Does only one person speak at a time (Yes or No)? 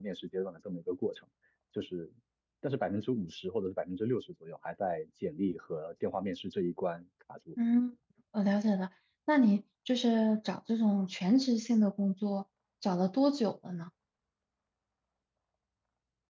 Yes